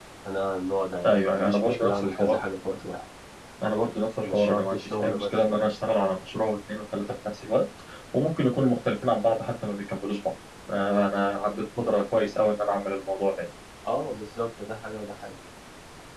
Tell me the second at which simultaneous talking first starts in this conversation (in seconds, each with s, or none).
1.0 s